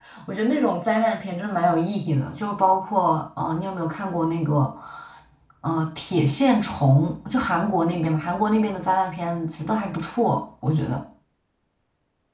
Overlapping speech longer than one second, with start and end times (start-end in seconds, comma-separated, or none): none